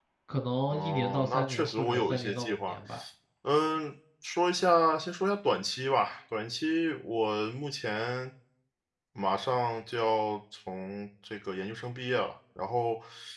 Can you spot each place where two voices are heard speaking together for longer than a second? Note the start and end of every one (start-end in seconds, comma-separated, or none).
0.7-2.8